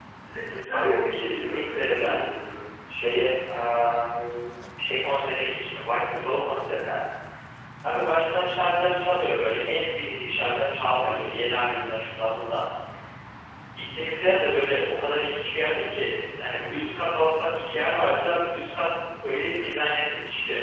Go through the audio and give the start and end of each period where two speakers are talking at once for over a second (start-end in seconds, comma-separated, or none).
0.7-2.3